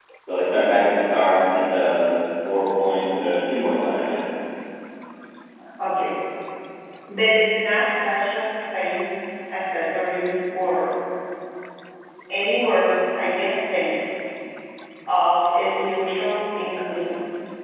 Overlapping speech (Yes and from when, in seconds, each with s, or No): No